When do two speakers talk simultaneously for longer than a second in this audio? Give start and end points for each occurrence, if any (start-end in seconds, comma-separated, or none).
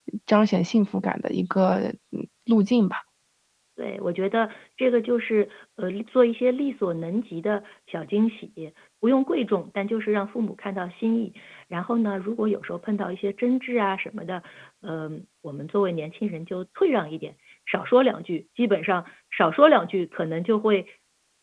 none